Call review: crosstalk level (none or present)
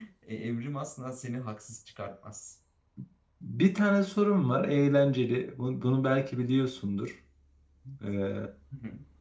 none